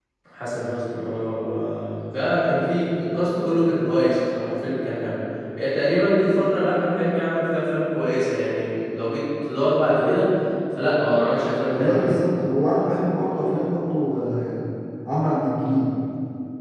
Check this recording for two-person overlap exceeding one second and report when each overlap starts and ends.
none

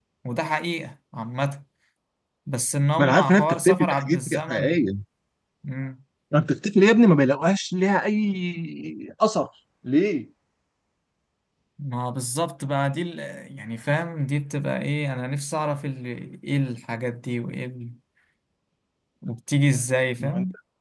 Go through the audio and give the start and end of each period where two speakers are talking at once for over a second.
3.0-4.9

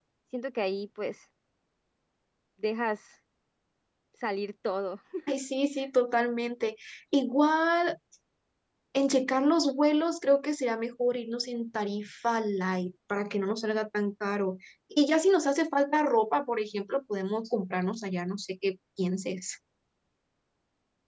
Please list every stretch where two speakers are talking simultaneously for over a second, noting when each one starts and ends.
none

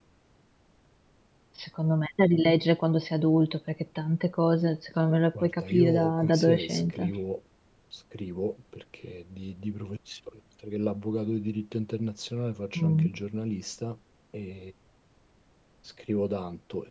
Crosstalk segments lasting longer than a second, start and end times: 5.4-7.1

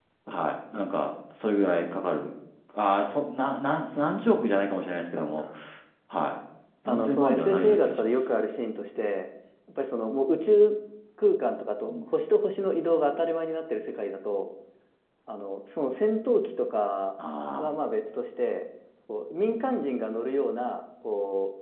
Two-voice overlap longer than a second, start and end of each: 6.9-8.1

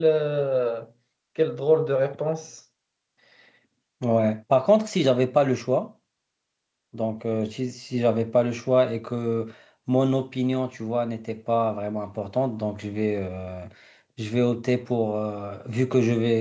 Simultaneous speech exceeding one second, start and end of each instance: none

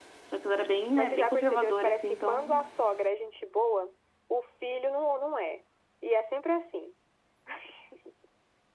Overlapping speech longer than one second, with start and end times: 0.9-2.6

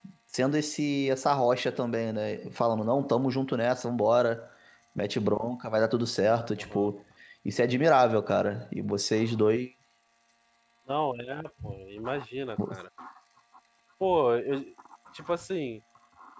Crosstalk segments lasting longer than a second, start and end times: none

